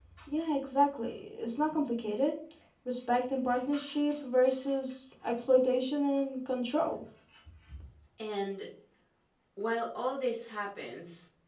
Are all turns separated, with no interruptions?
Yes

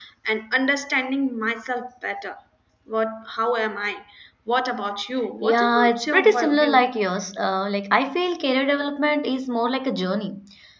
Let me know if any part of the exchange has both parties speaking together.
Yes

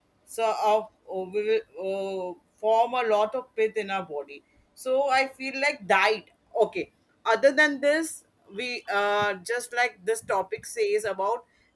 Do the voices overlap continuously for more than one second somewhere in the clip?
No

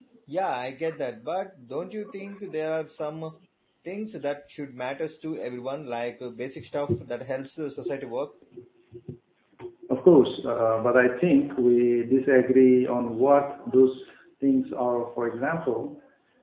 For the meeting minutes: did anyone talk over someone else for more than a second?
No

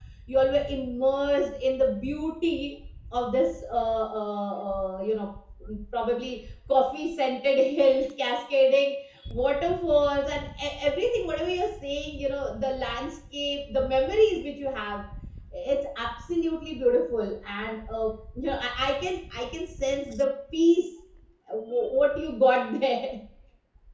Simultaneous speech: No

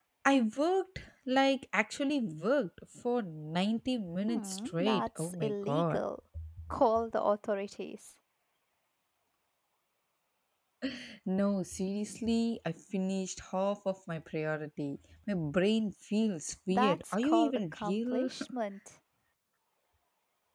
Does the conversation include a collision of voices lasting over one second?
Yes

